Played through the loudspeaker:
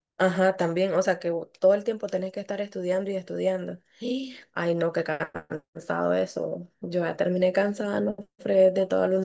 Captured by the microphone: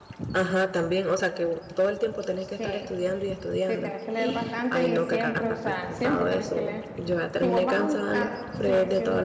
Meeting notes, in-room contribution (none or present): present